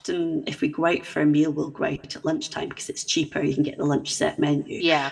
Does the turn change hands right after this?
No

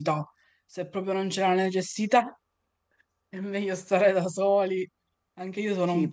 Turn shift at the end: Yes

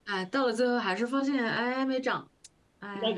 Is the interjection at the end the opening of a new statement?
Yes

